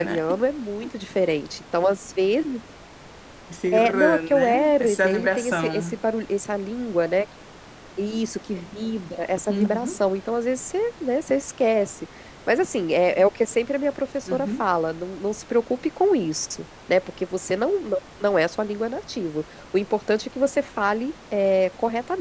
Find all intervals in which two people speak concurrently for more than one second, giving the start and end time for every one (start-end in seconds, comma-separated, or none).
3.7-6.0